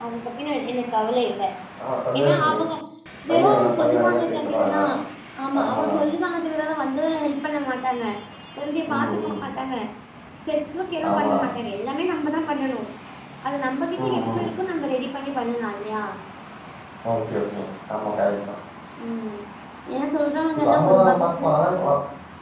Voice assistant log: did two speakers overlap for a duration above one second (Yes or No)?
Yes